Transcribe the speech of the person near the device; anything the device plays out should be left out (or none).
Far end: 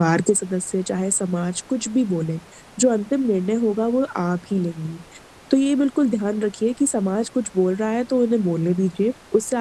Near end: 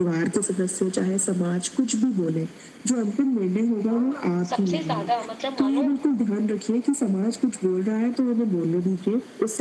हाँ, सबसे ज़्यादा मतलब मानो